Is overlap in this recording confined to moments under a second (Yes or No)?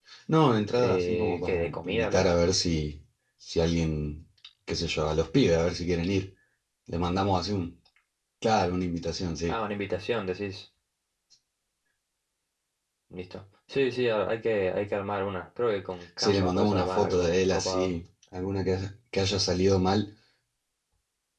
No